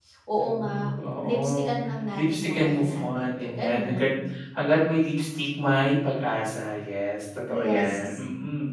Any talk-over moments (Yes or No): Yes